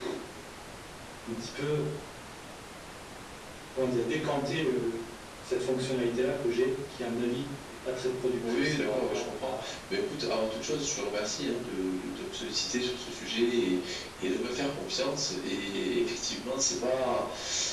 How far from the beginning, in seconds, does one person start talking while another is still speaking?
8.4 s

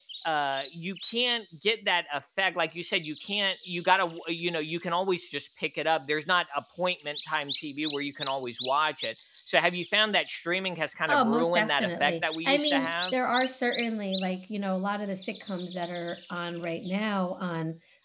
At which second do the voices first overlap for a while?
11.1 s

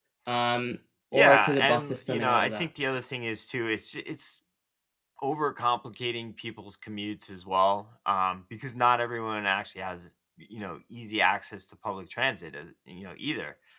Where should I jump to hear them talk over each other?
1.1 s

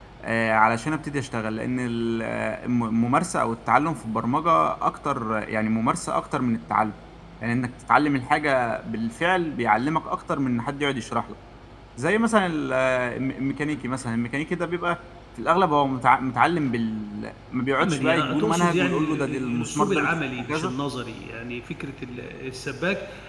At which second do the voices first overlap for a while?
17.8 s

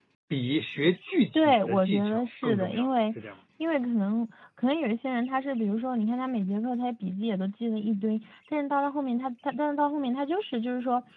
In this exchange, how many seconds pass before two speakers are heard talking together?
1.3 s

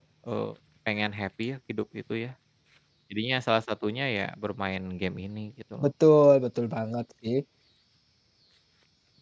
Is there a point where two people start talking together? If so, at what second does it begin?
none

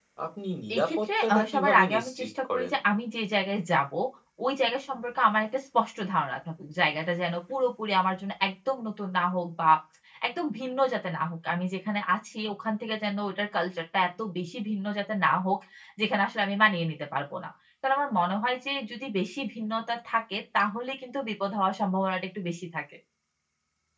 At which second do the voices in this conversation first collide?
0.8 s

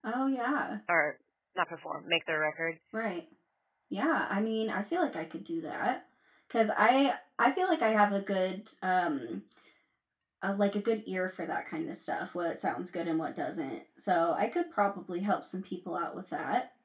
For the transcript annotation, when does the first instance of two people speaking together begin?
none

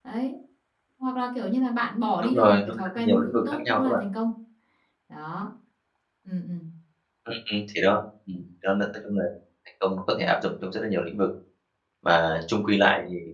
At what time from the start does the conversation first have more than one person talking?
2.2 s

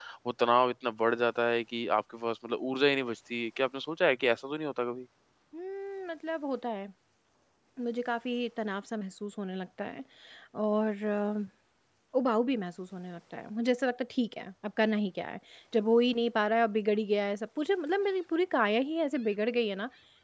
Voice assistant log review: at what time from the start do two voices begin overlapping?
none

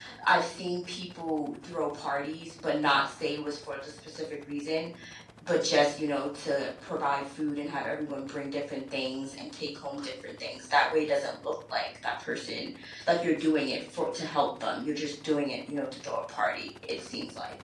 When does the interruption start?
none

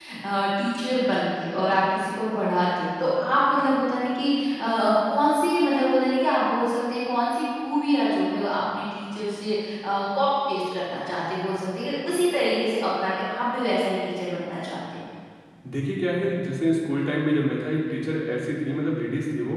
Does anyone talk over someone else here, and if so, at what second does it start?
none

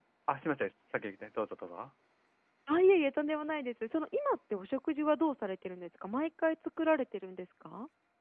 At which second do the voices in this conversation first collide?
none

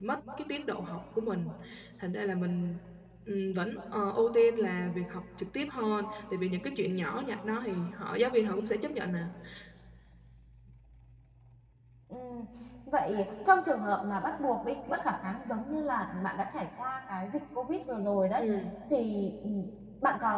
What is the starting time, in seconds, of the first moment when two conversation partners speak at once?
none

